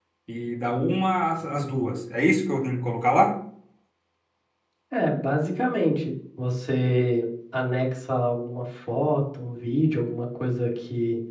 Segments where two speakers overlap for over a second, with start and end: none

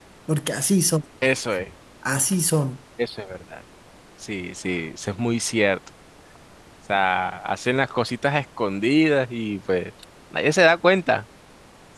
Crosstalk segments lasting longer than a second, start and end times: none

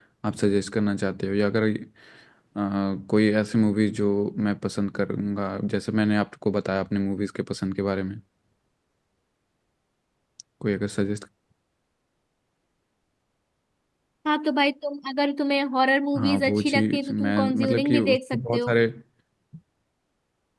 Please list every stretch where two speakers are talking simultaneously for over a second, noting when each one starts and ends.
16.1-18.7

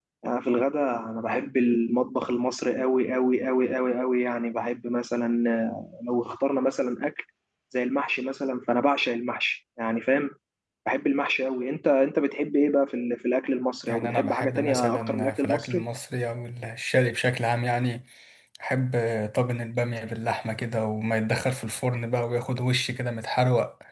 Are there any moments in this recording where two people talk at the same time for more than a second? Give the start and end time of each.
13.9-15.8

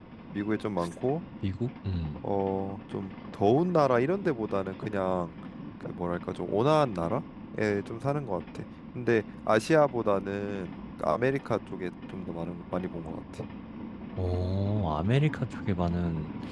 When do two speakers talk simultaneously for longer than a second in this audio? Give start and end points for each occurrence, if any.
none

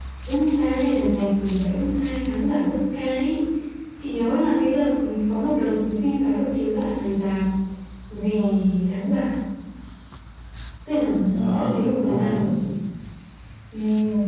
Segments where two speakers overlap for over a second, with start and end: 11.0-12.5

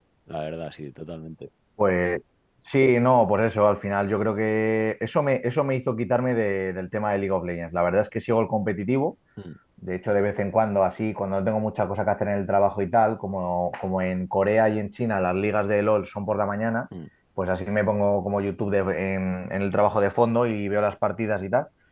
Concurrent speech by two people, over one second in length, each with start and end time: none

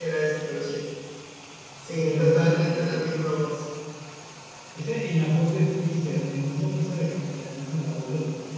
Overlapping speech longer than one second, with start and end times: 2.0-3.3

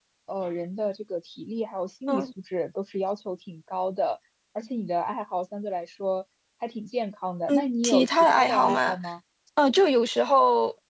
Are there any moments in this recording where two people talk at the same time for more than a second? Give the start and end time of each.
7.5-8.9

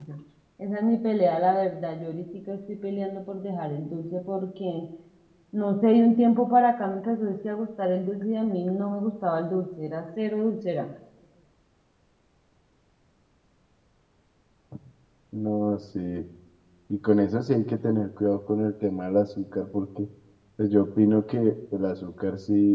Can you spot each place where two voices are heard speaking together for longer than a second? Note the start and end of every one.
none

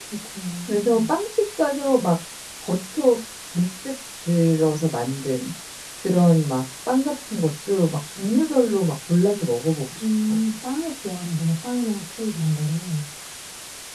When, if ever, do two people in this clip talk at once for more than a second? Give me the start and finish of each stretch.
none

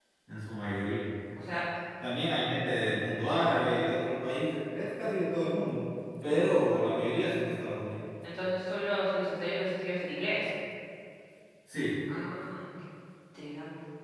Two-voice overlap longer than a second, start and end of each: none

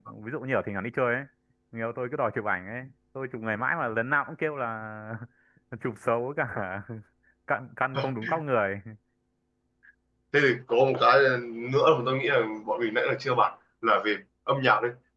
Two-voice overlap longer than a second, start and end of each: none

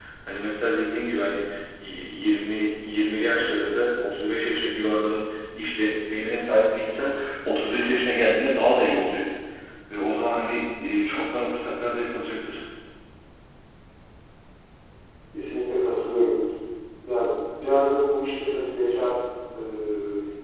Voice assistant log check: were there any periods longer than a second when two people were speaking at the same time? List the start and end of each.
none

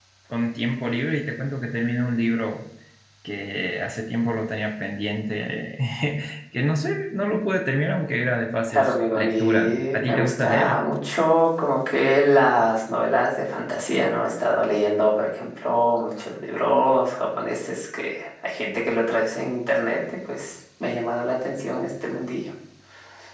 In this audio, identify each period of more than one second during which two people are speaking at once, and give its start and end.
8.7-10.8

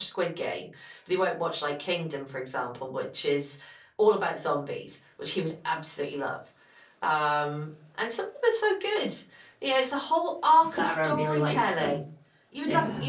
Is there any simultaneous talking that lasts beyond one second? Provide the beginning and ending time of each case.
10.6-12.0

